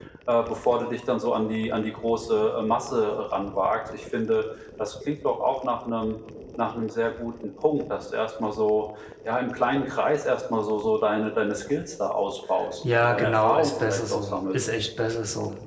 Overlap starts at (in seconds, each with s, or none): 12.8 s